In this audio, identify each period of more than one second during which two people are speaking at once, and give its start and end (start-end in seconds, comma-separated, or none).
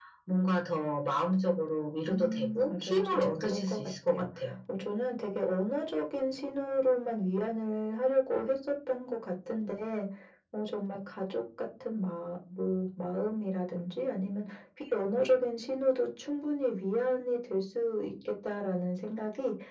2.0-4.3